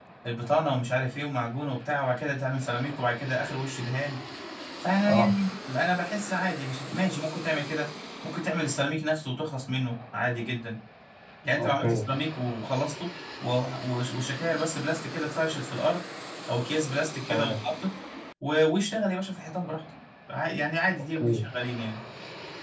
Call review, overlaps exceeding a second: none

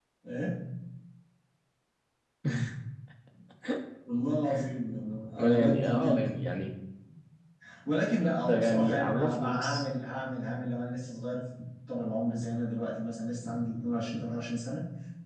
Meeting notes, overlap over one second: present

